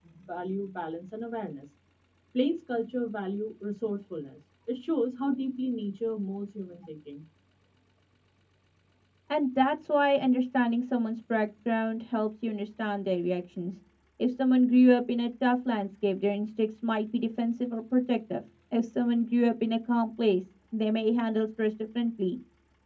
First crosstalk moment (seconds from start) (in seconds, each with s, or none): none